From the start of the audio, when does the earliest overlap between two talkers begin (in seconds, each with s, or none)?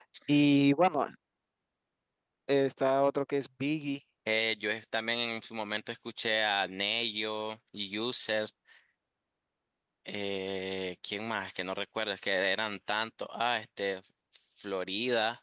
none